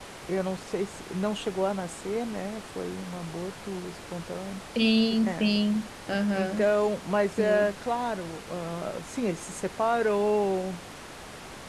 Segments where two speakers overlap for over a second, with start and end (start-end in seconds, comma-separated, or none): none